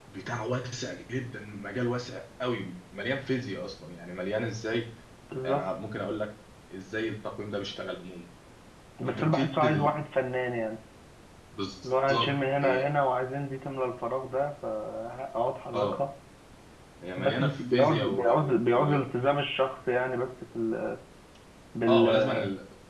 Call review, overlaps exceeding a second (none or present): present